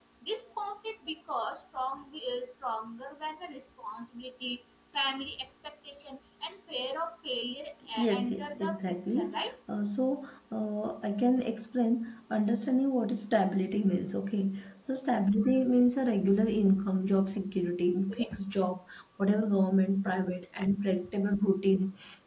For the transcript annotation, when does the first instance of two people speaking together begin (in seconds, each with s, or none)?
8.0 s